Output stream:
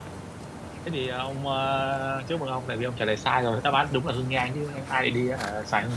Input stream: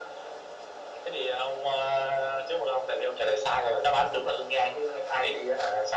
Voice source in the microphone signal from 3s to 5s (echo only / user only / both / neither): echo only